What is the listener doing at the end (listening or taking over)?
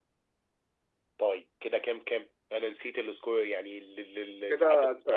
taking over